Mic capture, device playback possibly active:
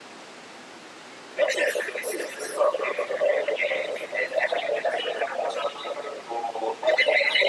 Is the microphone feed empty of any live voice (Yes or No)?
Yes